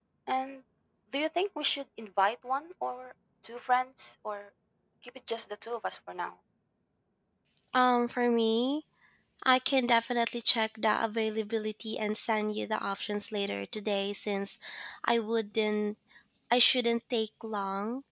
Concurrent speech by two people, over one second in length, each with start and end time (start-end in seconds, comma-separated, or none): none